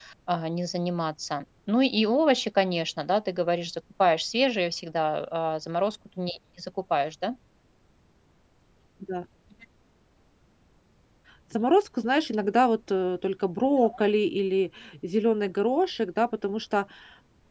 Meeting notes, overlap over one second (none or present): none